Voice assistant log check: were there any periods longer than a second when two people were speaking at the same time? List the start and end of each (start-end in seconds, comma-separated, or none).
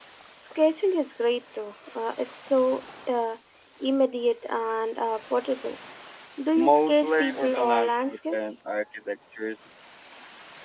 6.6-8.6